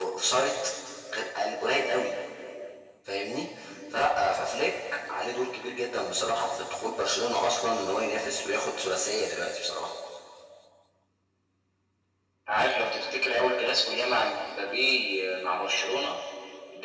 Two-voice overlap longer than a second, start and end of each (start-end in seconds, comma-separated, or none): none